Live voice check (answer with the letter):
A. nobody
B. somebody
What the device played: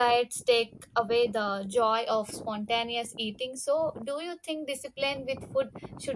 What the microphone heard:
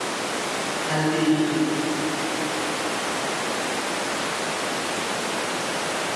B